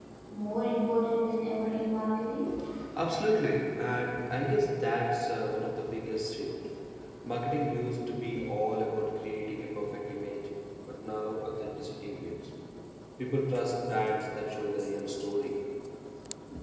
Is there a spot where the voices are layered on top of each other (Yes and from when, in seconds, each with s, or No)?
No